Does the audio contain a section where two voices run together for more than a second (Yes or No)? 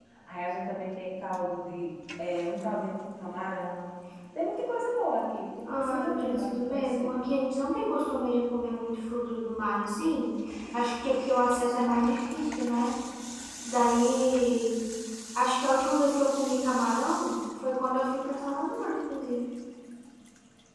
Yes